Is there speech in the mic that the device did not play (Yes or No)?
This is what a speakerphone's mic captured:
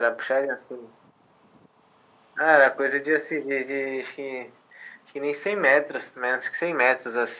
No